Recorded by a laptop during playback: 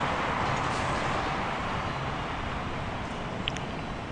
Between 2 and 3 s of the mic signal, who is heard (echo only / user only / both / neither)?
neither